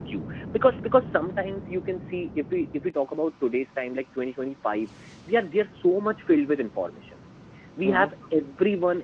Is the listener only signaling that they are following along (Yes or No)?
Yes